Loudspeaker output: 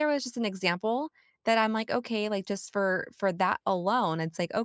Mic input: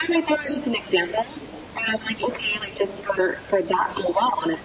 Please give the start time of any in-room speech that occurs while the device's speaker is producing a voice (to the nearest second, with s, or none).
none